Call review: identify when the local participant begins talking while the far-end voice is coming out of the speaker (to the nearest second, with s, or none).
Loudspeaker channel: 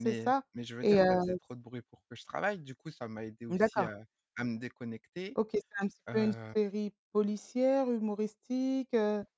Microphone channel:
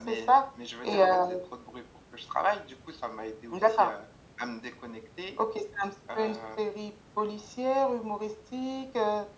none